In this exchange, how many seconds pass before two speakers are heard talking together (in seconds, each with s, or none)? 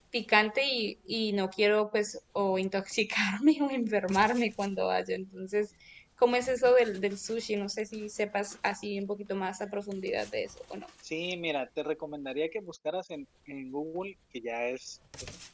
none